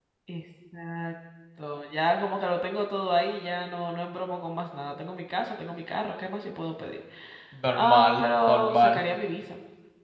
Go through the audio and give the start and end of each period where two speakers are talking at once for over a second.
7.7-9.0

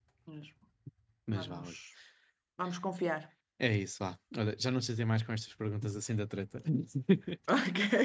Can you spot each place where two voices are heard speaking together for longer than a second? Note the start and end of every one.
none

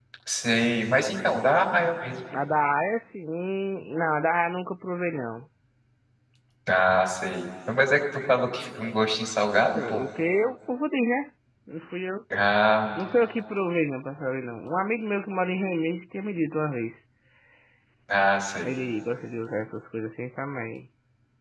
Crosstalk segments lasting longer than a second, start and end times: none

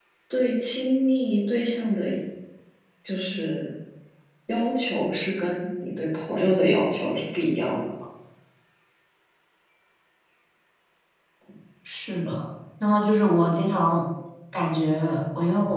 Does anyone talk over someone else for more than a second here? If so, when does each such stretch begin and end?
none

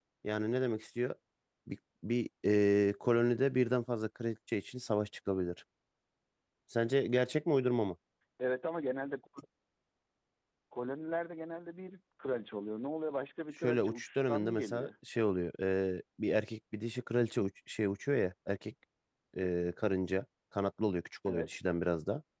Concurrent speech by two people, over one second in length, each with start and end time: 13.6-14.9

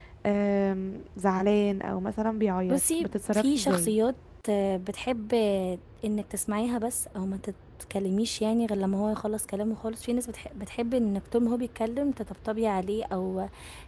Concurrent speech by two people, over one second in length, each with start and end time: 2.7-3.9

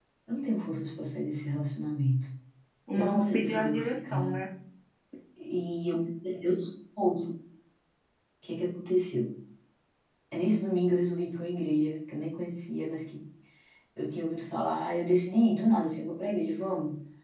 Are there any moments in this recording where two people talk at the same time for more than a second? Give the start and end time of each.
2.9-4.4

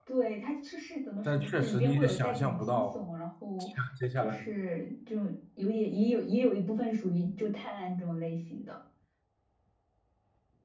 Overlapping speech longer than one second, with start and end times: 1.2-3.0

